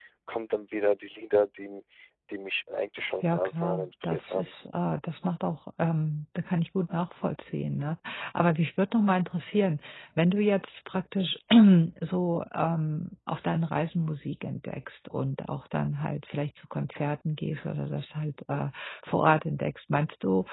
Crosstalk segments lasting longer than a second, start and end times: 3.2-4.5

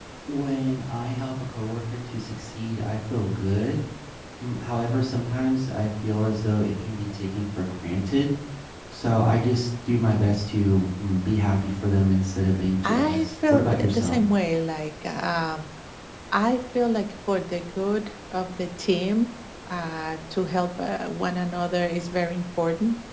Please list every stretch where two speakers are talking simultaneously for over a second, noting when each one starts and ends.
12.8-14.2

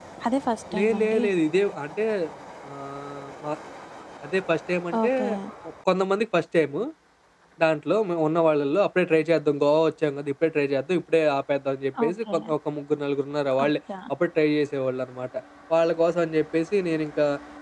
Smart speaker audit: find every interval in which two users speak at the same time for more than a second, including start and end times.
none

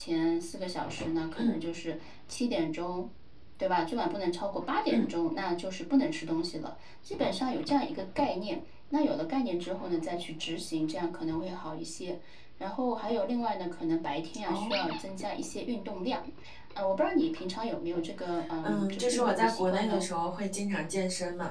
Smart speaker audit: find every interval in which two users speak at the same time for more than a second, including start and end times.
18.6-20.0

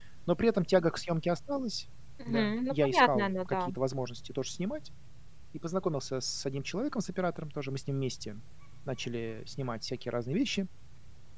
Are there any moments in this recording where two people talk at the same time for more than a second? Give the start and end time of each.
2.3-3.7

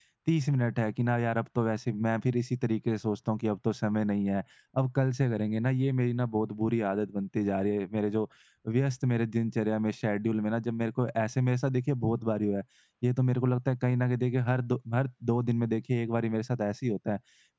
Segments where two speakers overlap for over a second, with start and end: none

